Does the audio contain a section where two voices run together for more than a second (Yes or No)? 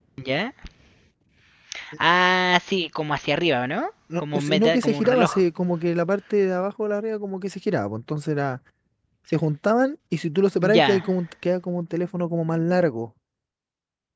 Yes